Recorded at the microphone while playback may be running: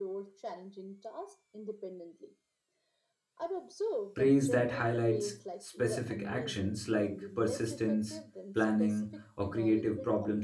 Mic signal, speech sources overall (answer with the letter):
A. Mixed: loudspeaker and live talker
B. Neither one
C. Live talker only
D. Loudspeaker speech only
A